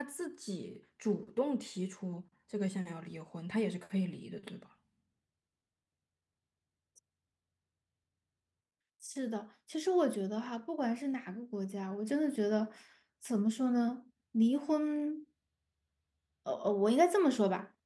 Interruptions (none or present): none